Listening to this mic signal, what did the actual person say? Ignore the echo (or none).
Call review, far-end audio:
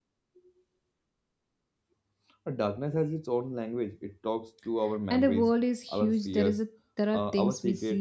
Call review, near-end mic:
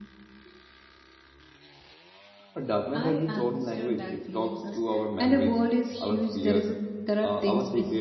I understood that feelings is